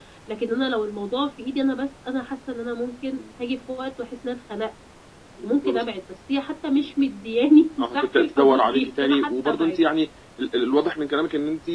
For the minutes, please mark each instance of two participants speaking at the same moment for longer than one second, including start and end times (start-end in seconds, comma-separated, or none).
7.8-9.8